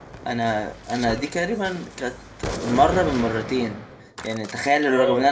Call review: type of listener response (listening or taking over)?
listening